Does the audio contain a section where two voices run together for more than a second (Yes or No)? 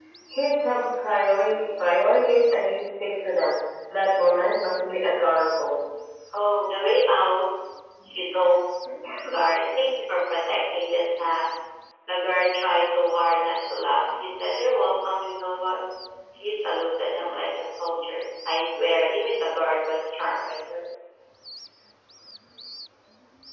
No